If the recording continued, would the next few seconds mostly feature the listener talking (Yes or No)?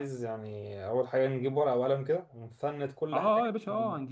Yes